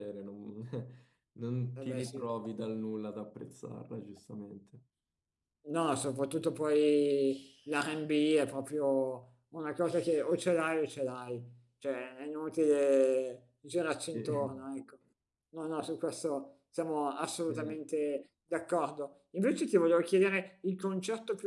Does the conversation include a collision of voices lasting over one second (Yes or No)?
No